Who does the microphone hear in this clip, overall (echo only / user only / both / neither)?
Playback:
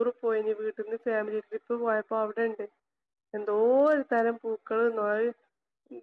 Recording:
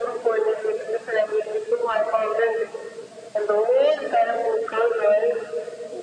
echo only